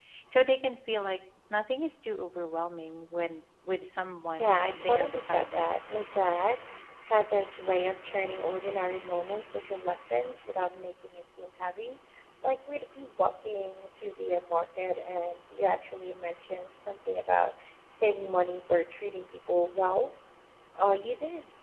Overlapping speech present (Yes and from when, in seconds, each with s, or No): Yes, from 4.4 s